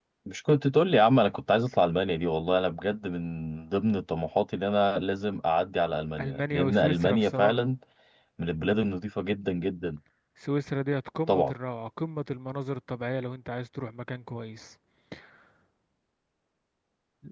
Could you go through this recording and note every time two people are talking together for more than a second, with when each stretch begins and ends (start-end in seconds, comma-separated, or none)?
6.2-7.7